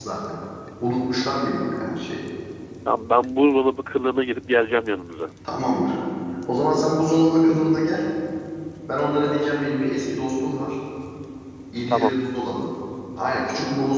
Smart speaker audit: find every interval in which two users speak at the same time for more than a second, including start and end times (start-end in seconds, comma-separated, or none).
none